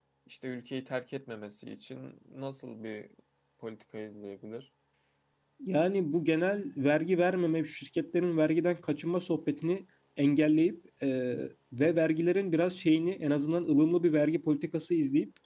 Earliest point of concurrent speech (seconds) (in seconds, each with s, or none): none